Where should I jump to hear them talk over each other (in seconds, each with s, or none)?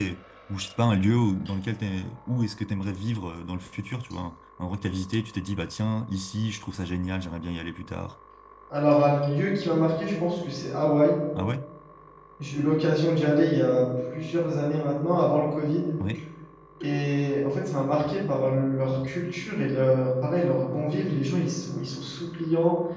none